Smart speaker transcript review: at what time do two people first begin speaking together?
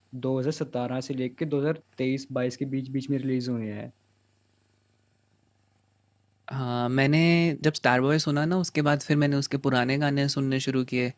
none

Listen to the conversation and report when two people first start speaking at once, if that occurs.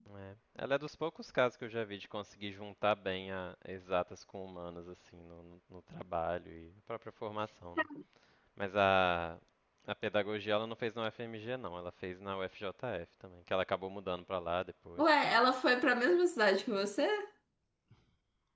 none

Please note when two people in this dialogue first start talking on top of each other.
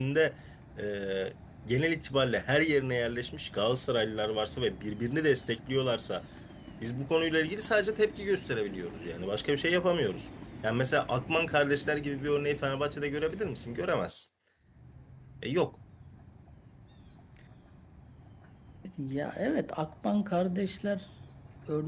none

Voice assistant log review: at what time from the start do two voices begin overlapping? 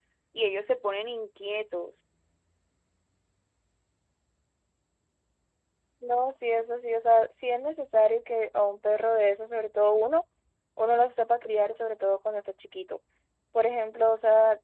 none

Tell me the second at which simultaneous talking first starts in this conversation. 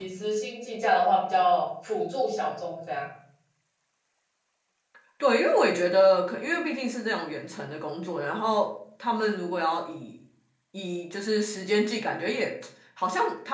none

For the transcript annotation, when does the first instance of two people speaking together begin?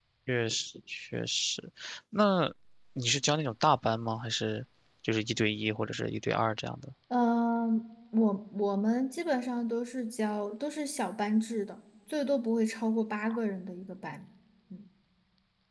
none

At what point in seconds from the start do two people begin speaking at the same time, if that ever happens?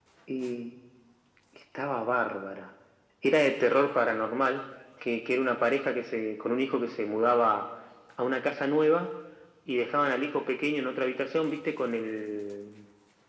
none

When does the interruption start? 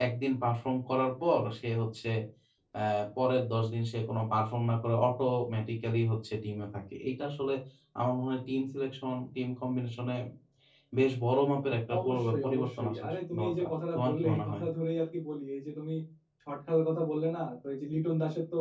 11.9 s

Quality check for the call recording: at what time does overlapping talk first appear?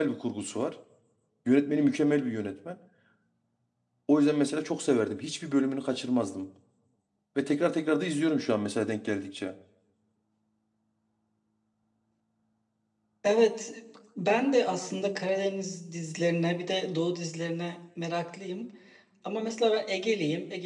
none

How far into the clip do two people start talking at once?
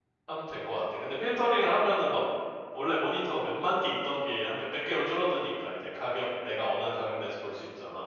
none

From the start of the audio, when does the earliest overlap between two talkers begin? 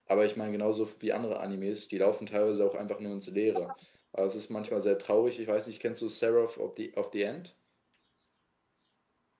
none

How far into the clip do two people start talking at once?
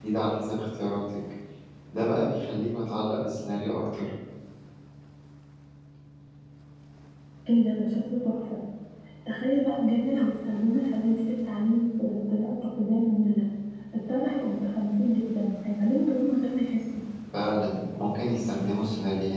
none

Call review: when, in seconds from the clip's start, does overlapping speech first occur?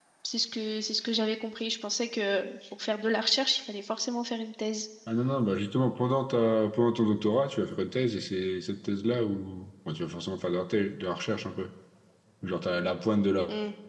none

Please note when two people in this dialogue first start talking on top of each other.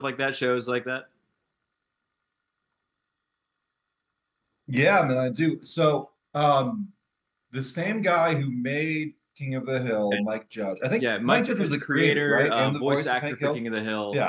11.0 s

